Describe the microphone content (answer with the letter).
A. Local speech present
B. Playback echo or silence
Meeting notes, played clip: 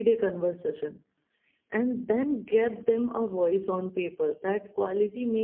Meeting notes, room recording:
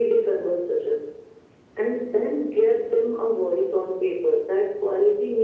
B